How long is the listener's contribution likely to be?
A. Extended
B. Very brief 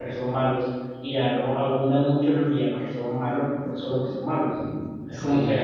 B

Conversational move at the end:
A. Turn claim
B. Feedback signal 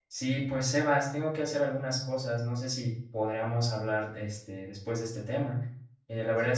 B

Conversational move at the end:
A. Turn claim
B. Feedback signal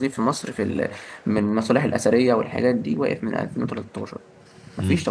A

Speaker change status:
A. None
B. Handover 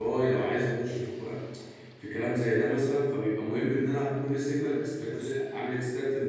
A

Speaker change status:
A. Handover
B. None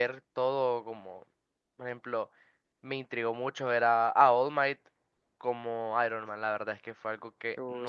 B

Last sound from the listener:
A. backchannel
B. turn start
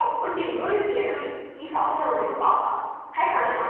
A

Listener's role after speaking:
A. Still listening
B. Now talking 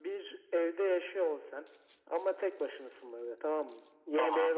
A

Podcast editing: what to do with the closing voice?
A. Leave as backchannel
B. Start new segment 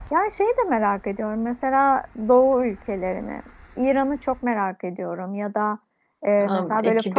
A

